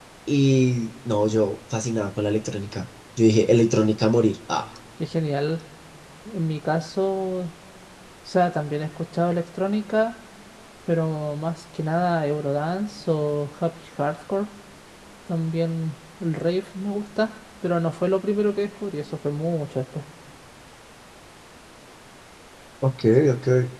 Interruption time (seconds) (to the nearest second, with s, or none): none